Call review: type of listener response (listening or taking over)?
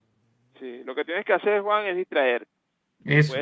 listening